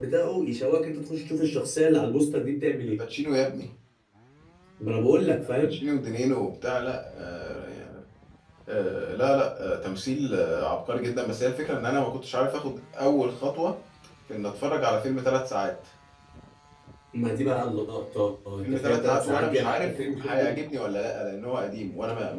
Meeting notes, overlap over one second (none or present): present